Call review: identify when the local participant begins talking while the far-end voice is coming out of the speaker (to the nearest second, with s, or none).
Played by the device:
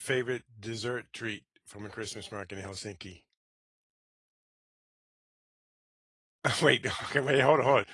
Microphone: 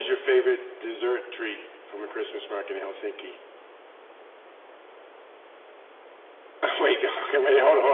none